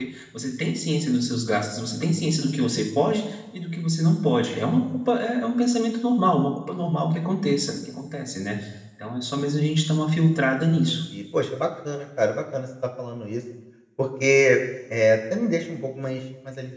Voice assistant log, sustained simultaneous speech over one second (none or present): none